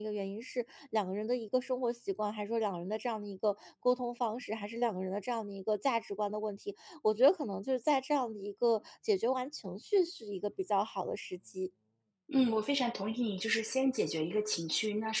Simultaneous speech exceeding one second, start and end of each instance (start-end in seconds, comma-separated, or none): none